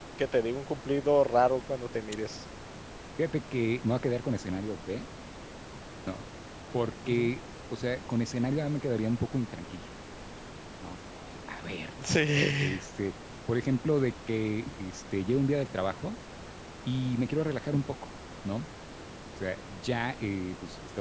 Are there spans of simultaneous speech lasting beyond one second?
No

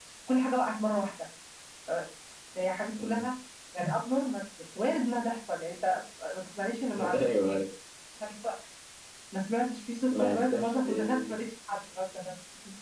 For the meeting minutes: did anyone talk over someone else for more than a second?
Yes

